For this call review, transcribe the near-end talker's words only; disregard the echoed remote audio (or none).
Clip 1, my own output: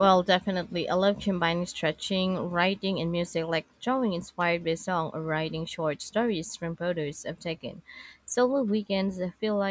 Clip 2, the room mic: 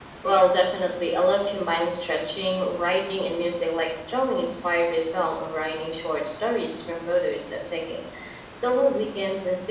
none